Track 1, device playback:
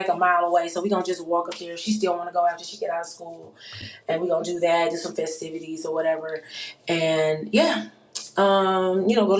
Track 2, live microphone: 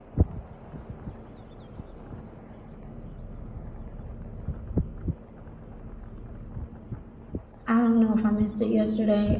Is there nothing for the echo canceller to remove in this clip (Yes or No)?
Yes